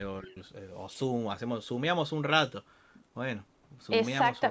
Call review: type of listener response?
taking over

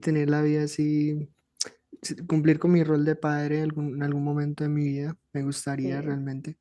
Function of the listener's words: listening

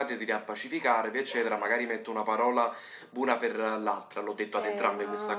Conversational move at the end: taking over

